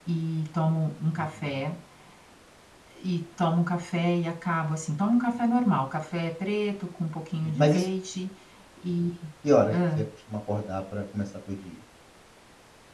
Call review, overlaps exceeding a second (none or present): none